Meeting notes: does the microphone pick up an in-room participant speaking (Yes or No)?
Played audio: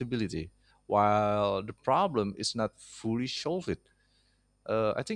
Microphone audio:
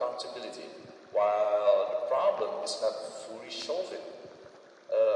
No